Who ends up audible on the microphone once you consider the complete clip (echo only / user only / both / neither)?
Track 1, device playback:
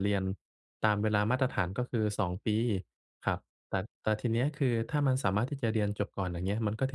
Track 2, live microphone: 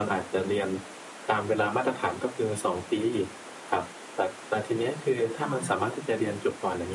both